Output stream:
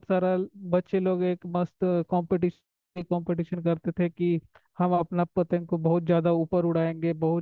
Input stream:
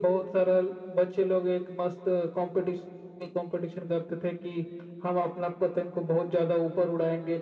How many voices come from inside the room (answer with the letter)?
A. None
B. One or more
A